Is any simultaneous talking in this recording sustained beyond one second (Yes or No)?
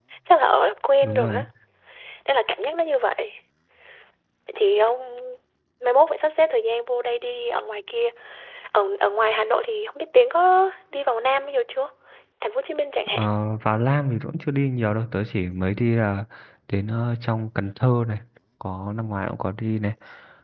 No